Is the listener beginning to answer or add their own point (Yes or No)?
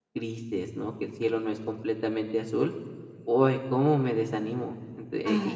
No